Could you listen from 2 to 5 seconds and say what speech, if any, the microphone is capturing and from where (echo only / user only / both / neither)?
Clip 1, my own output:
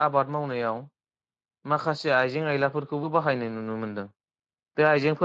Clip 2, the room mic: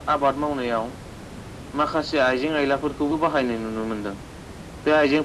echo only